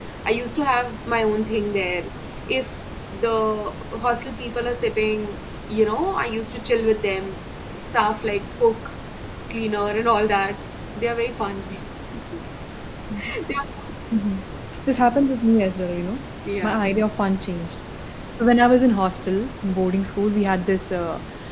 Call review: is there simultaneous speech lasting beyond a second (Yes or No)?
No